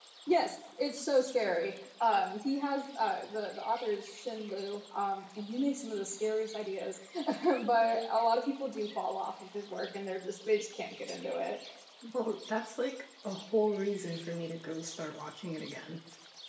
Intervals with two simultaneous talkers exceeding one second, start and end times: none

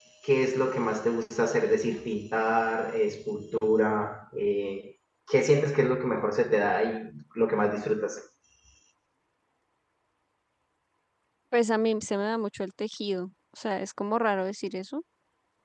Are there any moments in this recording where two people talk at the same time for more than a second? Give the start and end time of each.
none

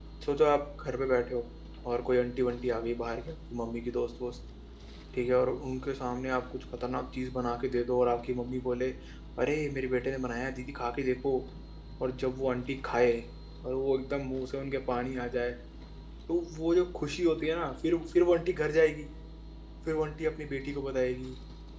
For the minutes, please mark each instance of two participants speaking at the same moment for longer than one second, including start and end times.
none

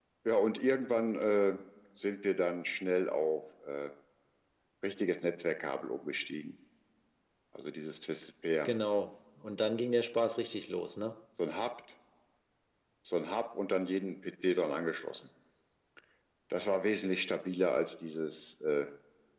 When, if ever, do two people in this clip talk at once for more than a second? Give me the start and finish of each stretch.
none

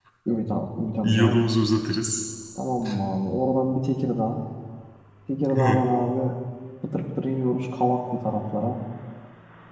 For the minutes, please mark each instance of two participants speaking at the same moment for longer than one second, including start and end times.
none

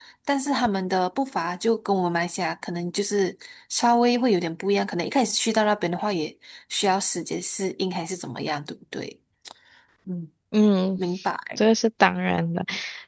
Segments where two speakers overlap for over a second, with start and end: none

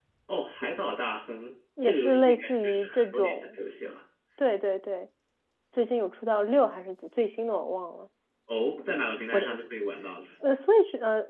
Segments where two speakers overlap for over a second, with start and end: 1.8-3.6

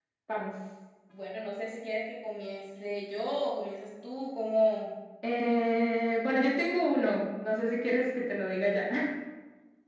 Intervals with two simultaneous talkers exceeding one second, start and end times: none

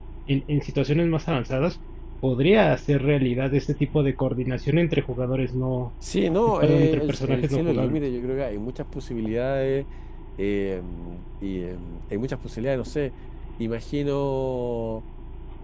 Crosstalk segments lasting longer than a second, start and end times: 6.6-8.0

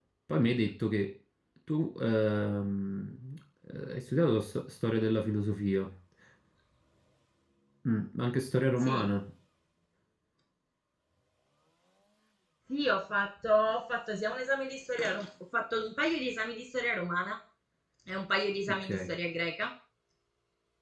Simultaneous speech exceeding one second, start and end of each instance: none

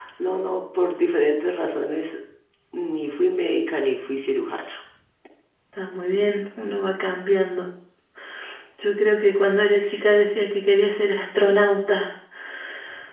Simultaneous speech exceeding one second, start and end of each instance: none

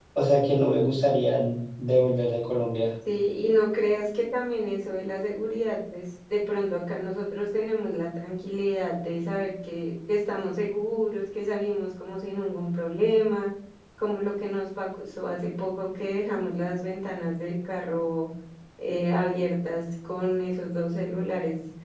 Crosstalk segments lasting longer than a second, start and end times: none

